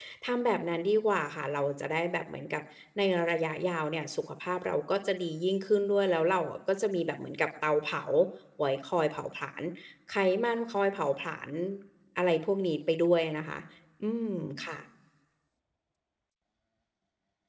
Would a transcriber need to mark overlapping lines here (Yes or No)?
No